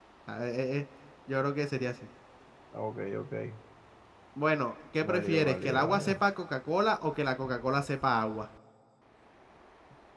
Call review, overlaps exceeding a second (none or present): present